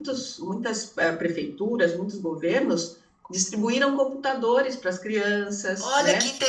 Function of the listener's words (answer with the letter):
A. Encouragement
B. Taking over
B